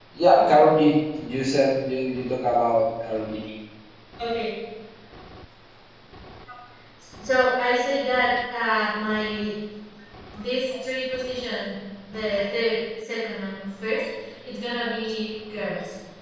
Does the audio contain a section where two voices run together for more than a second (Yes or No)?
No